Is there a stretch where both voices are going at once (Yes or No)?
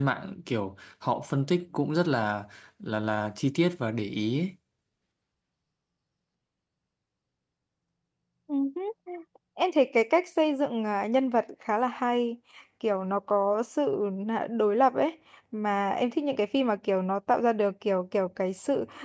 No